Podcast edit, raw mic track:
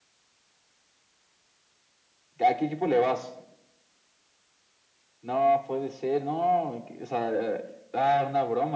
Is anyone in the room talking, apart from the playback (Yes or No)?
No